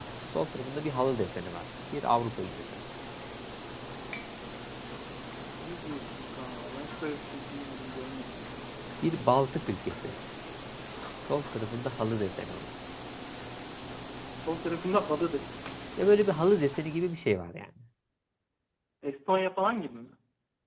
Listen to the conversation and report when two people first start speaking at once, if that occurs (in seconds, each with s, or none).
none